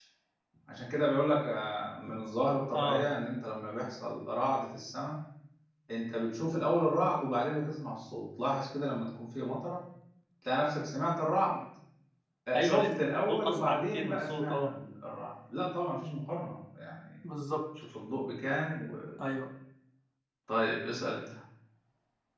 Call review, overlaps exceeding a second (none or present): present